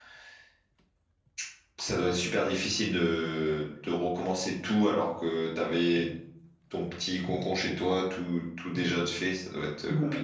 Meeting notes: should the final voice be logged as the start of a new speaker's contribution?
Yes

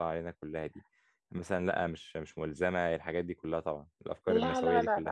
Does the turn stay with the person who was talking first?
No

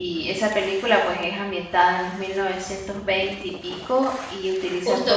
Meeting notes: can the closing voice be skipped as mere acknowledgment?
No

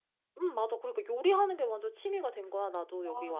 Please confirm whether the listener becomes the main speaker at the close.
Yes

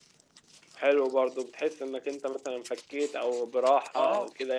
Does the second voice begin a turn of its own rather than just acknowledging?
Yes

